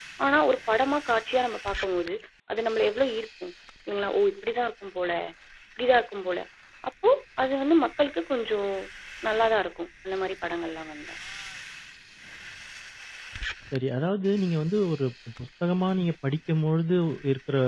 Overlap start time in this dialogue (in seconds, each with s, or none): none